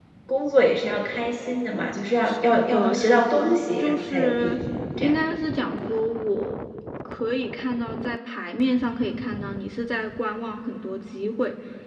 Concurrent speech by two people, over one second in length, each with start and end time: 2.2-4.6

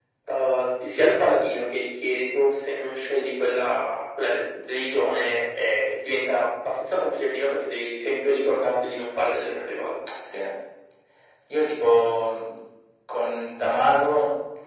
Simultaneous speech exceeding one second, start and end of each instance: none

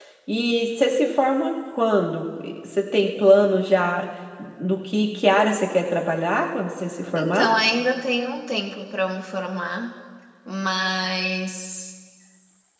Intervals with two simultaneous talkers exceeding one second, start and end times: none

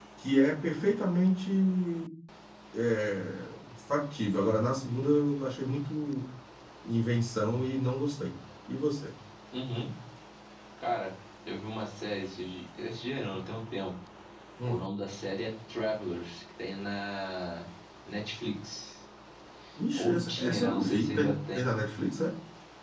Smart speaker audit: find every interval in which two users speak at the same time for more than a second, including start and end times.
19.9-21.6

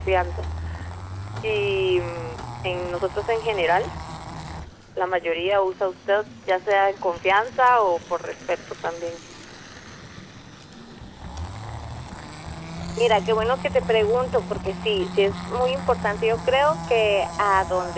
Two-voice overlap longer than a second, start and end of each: none

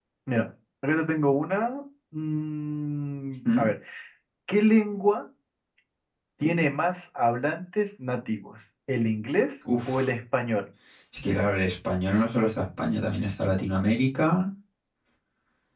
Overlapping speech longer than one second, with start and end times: none

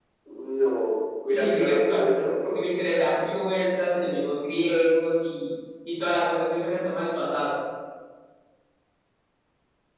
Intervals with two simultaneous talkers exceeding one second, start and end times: 1.3-2.6

